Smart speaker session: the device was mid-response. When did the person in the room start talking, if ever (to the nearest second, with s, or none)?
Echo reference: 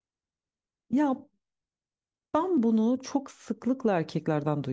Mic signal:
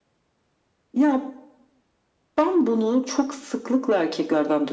none